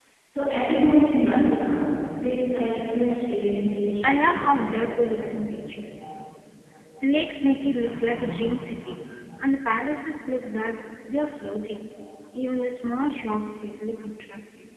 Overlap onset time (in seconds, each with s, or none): 4.0 s